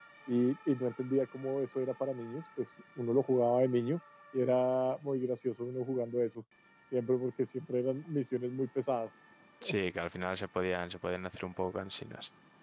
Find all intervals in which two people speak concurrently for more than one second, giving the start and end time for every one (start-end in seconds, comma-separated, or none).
none